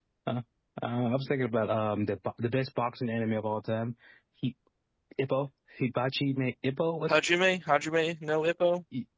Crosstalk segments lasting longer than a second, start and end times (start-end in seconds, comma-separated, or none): none